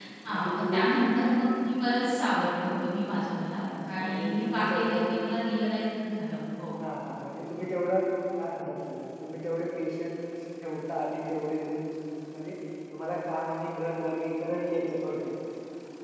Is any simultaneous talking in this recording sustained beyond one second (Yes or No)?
Yes